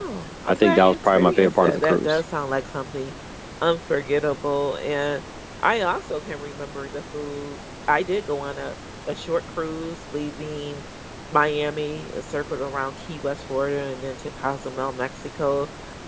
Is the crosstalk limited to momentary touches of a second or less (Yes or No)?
No